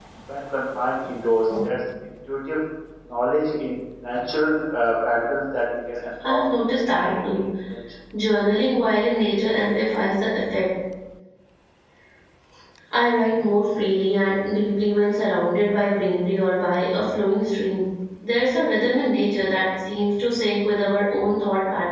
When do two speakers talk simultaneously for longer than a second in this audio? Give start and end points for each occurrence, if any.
6.2-7.4

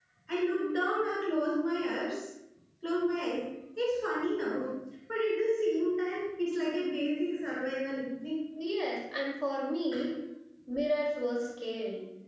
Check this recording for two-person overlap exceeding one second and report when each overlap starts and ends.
none

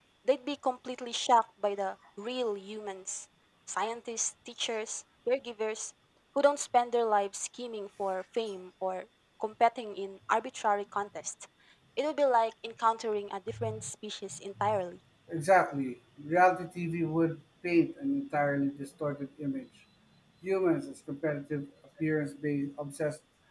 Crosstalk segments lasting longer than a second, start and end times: none

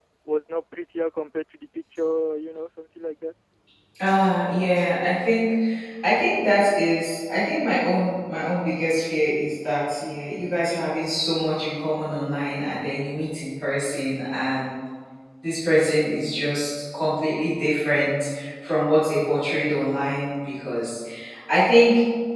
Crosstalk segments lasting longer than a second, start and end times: none

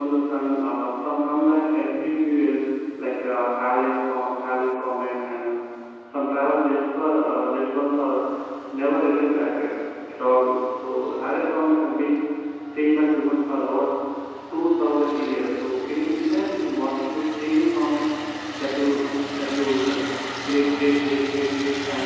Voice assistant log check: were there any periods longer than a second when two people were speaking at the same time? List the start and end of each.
none

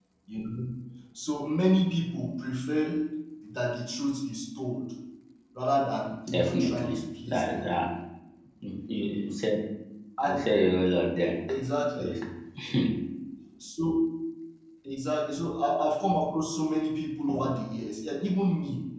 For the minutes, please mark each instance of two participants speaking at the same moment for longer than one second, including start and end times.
6.4-7.7

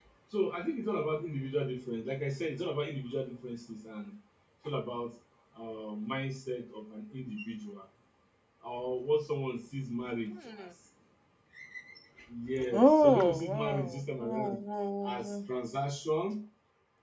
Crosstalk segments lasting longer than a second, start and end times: 12.7-14.6

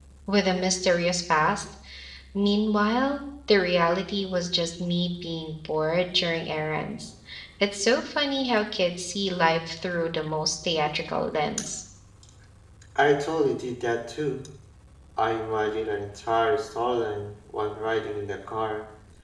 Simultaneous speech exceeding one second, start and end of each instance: none

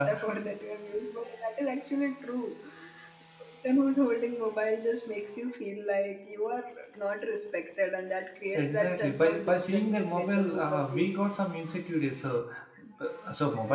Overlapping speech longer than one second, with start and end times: 8.6-11.1

